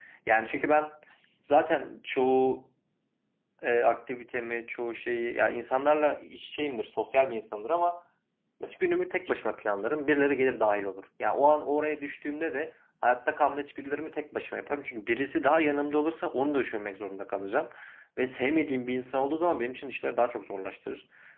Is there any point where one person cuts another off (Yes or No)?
No